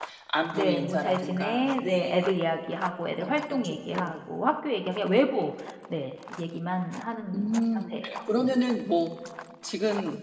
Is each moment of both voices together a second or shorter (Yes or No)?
No